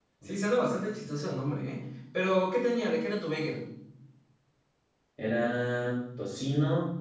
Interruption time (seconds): none

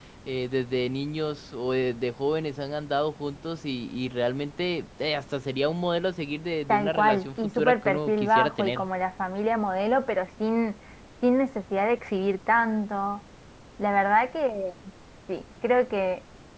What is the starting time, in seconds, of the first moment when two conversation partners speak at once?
6.7 s

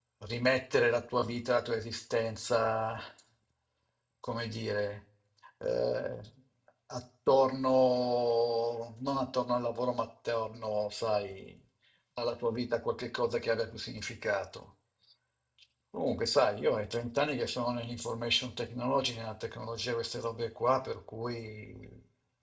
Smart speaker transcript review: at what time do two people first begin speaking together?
none

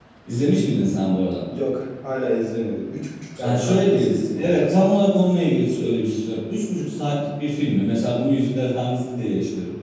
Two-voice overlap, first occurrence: 3.4 s

